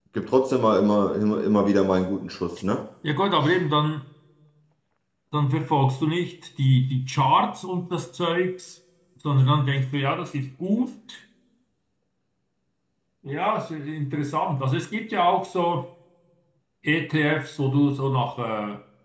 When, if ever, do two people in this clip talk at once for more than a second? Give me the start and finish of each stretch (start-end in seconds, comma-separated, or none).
none